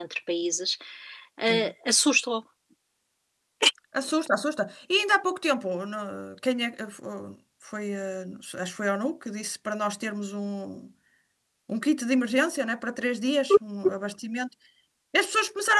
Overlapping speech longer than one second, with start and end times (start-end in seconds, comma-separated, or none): none